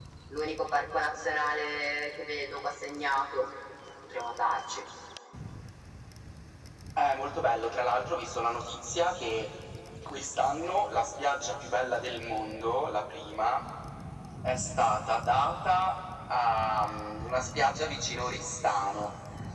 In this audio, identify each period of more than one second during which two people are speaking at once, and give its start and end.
none

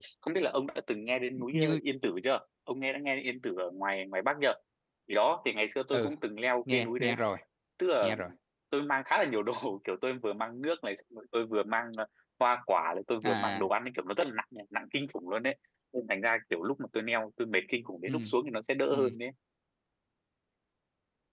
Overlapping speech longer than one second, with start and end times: none

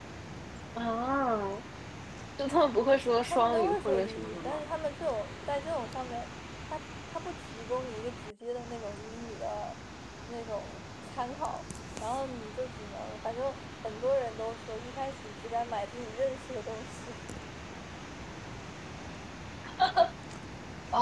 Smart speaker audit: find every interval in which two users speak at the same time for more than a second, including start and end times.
3.3-4.6

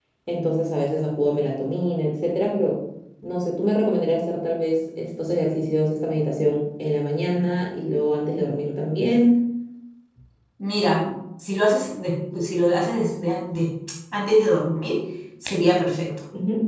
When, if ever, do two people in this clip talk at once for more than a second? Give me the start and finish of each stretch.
none

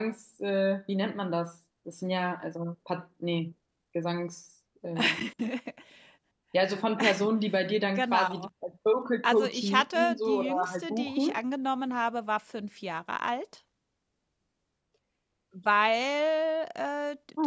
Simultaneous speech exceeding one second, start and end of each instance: 9.2-11.3

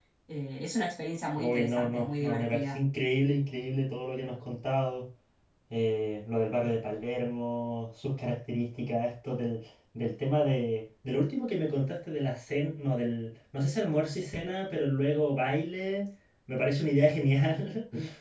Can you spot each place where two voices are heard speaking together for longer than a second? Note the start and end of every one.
1.4-2.8

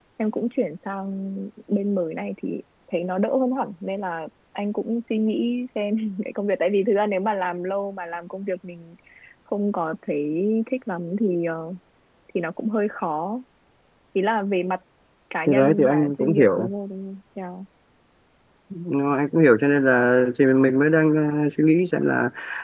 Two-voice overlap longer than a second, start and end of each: 15.5-16.7

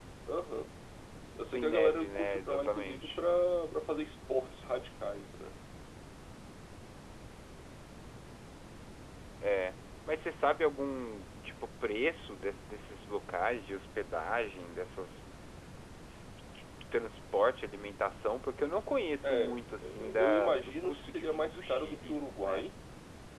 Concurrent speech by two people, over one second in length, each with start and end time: 1.5-3.2, 19.2-22.6

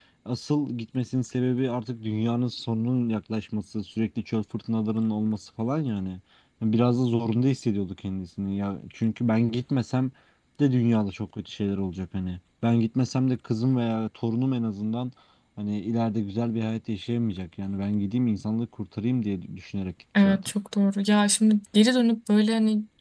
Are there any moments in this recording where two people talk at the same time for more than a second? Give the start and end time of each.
none

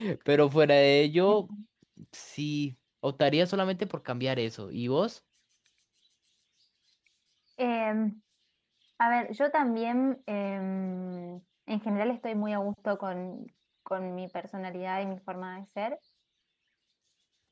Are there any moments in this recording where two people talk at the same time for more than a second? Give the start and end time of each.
none

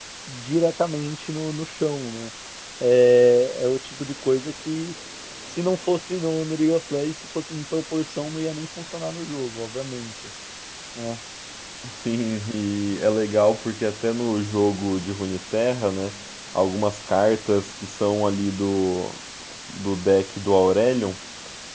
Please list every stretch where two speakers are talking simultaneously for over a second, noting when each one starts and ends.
none

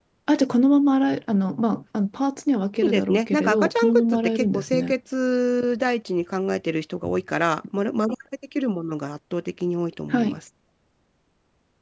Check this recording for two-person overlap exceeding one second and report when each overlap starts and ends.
2.8-4.9

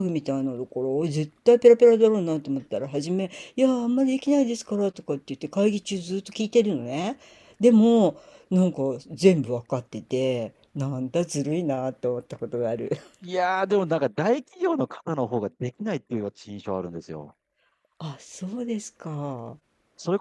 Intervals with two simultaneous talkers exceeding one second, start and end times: none

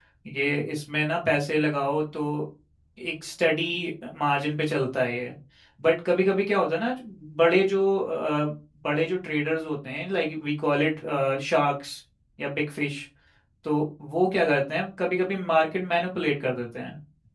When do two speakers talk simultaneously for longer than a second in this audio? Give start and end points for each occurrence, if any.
none

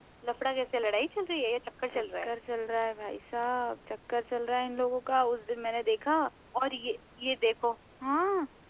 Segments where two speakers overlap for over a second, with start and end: none

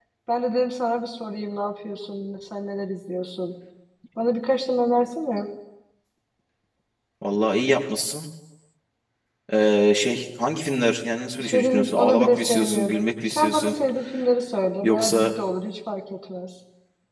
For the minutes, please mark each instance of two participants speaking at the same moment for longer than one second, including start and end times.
11.4-13.7

